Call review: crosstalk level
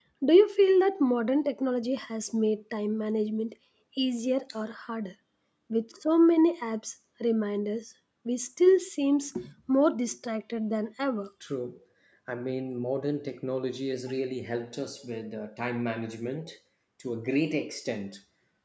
none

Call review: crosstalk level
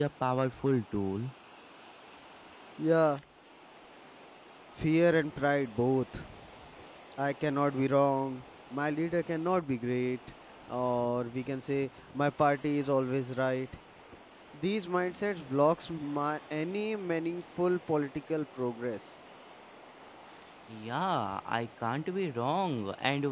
none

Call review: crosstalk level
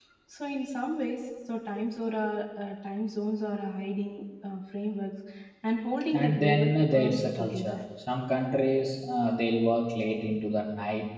present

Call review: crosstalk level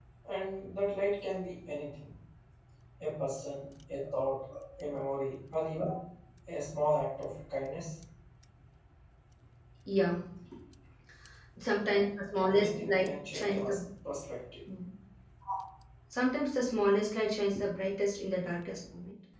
present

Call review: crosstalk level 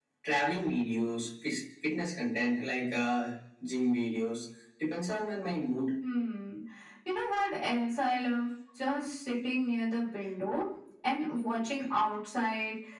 none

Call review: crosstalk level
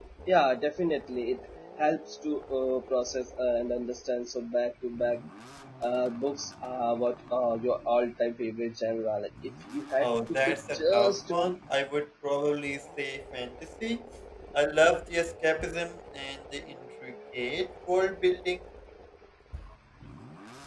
present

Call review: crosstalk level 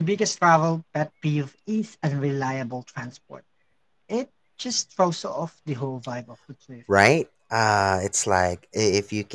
none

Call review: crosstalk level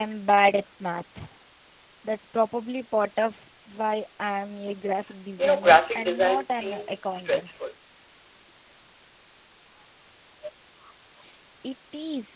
present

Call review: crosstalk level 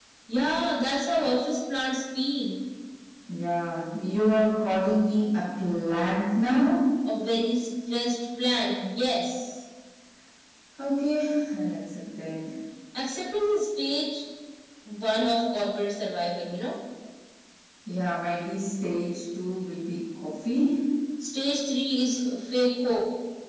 none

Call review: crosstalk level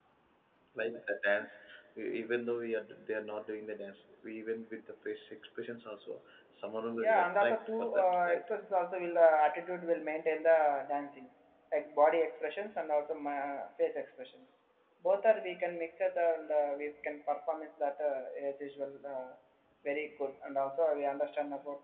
present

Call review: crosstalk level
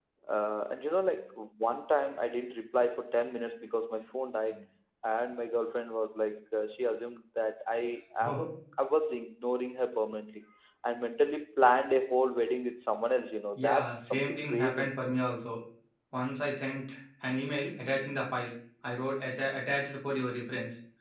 present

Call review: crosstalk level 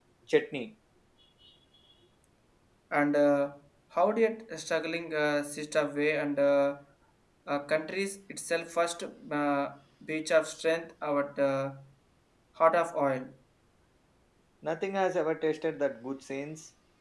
none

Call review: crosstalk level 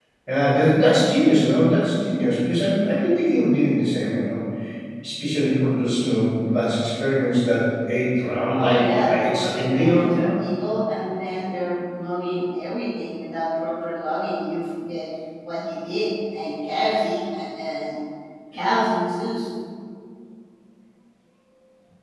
present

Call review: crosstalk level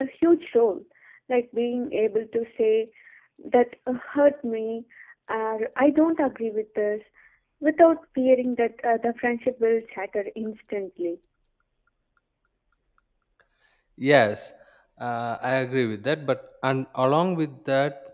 none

